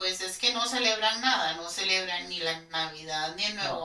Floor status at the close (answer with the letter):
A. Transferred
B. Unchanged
B